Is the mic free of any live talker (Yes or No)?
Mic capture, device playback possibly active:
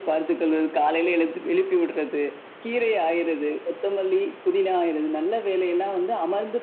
Yes